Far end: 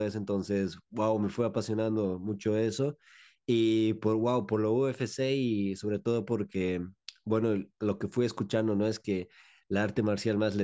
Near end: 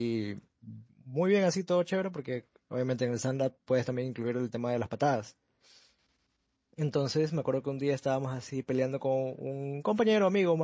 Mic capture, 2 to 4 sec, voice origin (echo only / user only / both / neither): user only